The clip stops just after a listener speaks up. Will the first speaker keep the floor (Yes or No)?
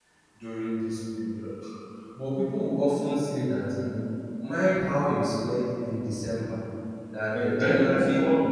No